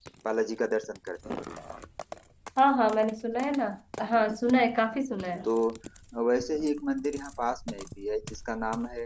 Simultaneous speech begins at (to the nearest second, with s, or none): none